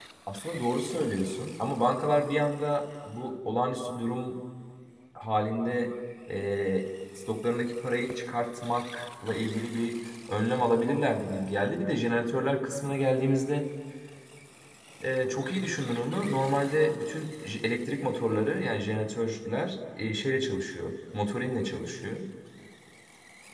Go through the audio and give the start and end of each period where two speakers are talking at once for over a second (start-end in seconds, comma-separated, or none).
none